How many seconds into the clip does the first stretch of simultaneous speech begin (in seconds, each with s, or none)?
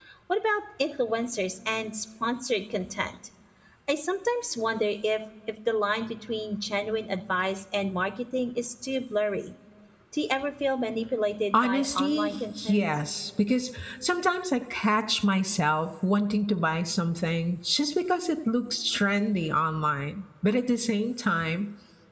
11.5 s